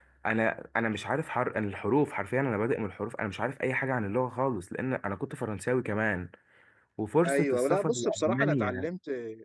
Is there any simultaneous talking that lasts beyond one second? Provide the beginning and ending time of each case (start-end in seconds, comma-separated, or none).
7.2-8.9